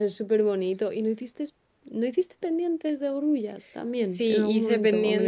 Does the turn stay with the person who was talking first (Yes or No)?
No